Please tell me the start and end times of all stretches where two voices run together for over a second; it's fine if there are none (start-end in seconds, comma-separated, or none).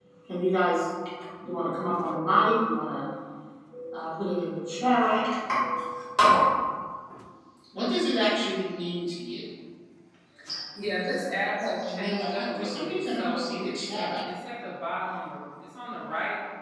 11.8-14.2